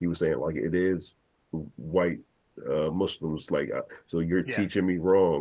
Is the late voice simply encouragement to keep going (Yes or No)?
Yes